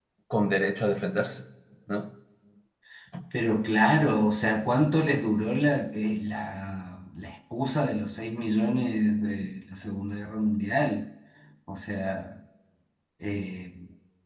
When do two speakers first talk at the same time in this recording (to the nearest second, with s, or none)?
none